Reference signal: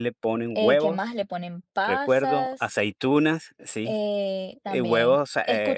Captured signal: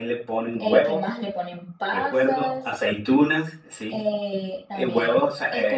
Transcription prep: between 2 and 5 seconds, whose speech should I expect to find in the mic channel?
echo only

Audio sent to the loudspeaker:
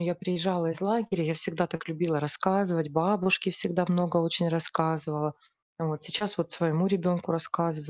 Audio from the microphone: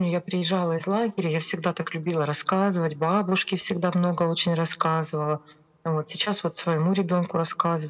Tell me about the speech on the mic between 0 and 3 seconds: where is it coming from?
echo only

